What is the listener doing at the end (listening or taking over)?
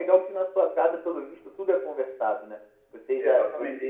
taking over